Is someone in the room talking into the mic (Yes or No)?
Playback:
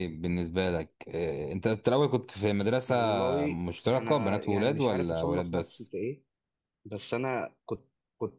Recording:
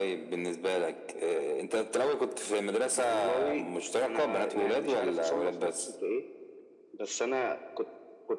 No